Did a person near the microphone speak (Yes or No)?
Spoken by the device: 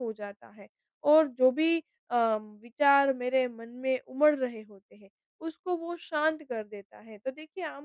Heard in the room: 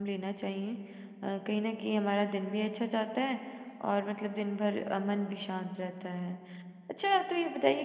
Yes